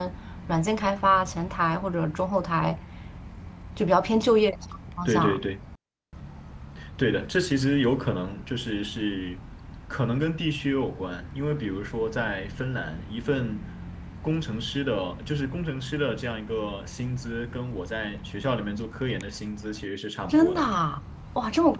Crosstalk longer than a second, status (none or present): none